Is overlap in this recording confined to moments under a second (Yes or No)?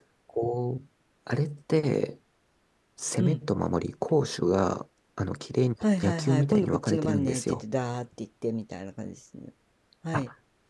No